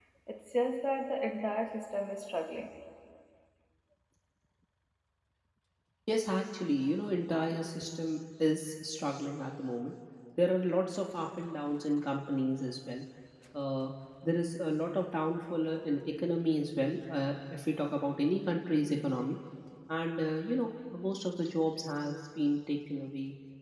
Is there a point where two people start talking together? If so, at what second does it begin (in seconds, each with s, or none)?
none